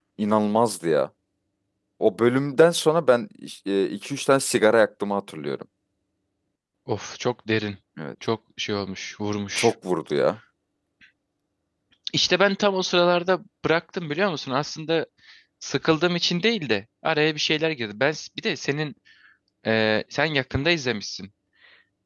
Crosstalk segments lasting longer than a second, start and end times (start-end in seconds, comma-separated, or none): none